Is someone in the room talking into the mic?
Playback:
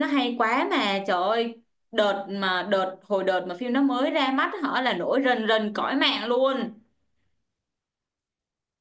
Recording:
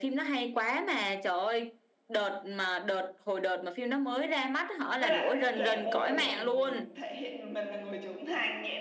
Yes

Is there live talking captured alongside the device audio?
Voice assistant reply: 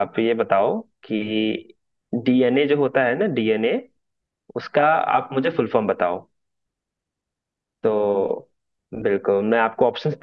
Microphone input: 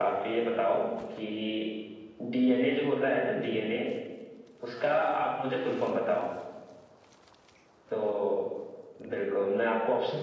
No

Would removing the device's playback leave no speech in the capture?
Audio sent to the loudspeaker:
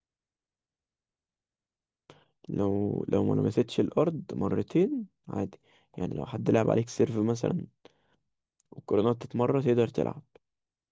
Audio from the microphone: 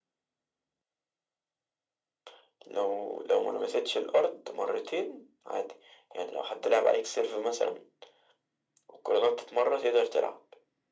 Yes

